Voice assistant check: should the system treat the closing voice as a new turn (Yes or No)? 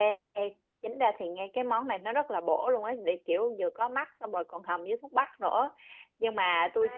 No